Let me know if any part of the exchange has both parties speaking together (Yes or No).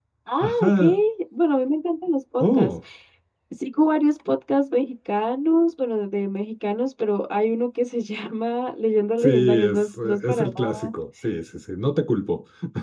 Yes